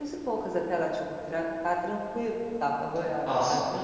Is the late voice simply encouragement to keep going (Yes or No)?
No